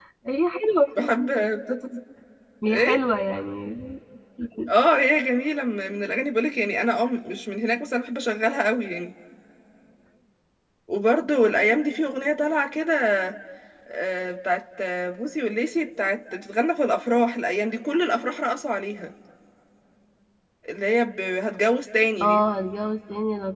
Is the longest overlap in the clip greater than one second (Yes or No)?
No